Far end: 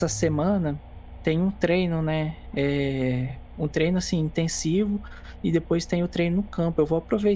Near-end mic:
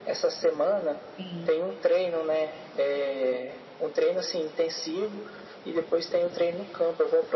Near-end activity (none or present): present